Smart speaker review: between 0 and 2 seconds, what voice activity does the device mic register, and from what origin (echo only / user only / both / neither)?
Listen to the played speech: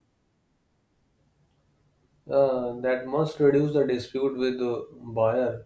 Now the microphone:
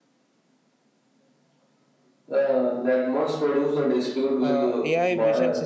neither